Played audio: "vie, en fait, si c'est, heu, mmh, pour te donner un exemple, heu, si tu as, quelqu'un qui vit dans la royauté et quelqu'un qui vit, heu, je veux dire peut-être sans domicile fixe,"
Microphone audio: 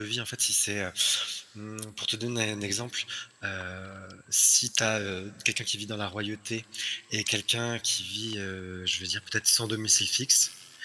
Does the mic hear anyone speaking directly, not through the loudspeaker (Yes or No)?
No